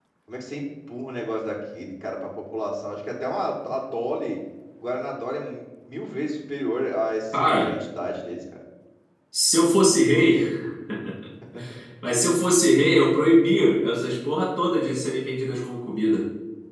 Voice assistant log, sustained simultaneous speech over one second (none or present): none